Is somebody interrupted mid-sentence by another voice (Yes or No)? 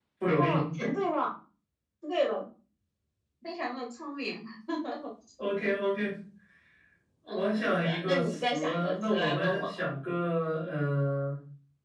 Yes